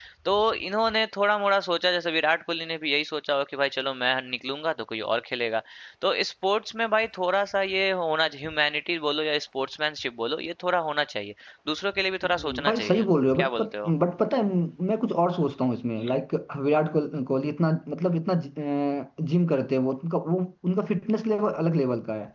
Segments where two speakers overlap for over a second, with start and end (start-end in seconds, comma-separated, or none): 12.7-13.9